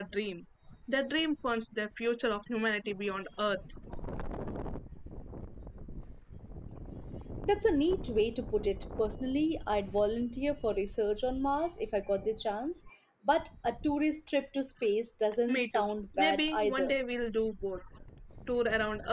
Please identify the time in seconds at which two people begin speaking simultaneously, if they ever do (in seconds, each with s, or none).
15.5 s